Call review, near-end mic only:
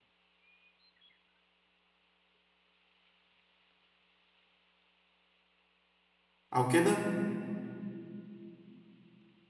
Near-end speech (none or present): present